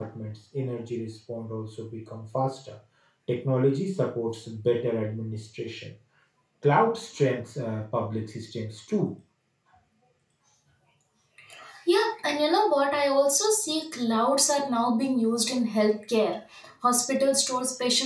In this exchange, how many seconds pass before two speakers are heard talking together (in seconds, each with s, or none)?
none